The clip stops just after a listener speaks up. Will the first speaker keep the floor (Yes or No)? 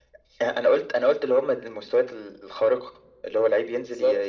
Yes